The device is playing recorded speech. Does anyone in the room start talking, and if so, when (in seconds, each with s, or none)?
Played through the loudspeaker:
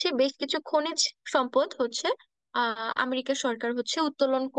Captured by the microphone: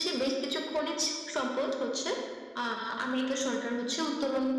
none